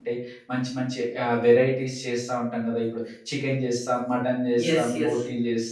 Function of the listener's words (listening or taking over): listening